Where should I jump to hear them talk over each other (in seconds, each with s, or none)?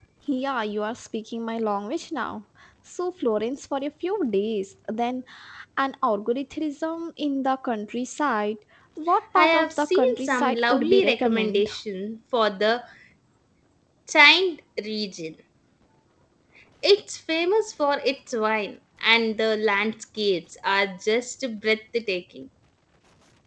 9.3 s